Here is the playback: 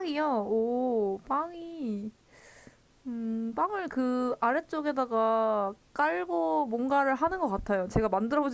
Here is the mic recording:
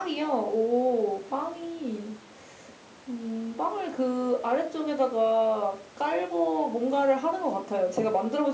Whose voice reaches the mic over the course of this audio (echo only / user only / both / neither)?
echo only